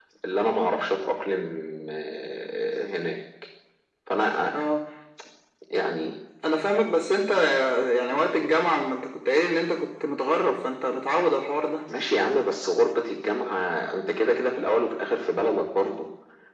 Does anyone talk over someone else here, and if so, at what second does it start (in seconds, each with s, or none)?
none